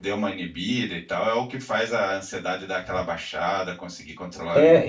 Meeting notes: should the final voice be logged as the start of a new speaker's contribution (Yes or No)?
Yes